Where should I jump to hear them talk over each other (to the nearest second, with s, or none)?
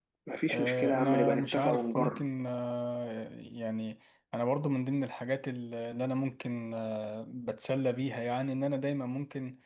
1 s